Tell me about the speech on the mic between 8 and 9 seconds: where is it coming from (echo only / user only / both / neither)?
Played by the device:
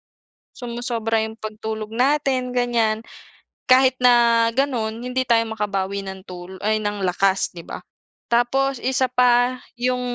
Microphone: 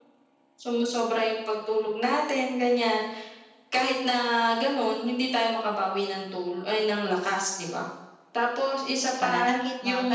echo only